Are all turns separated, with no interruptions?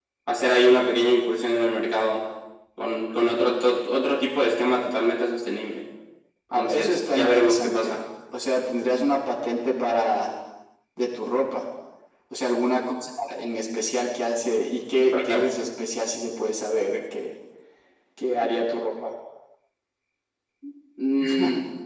No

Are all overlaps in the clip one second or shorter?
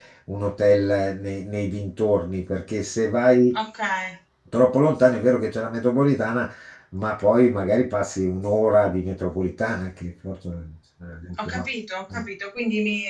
Yes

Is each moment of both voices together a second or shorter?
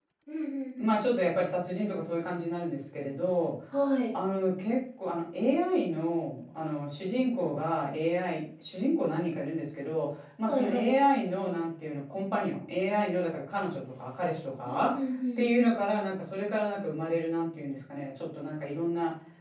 Yes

